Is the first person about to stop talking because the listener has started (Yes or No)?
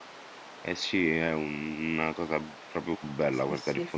No